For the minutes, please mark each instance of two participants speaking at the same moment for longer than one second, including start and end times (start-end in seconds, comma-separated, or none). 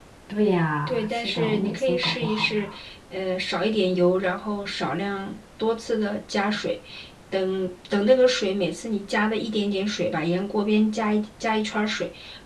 0.9-2.7